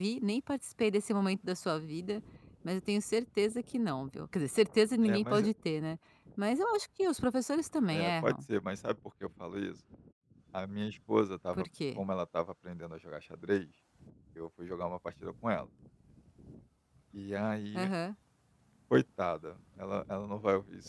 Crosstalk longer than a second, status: none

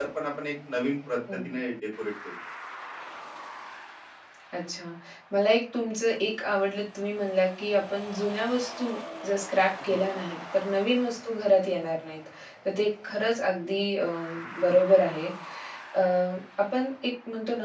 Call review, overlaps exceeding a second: none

